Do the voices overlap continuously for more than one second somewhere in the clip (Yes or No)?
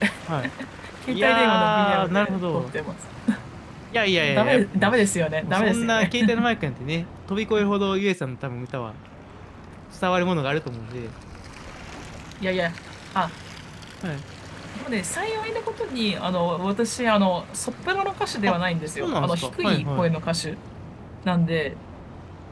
Yes